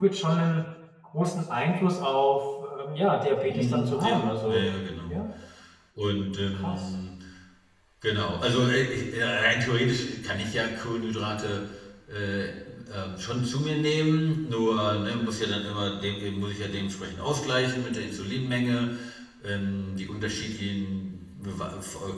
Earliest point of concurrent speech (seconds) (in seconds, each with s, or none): 3.5 s